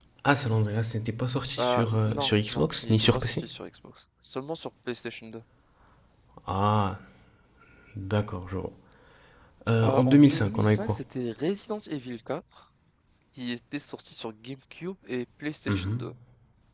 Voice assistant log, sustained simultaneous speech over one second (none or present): present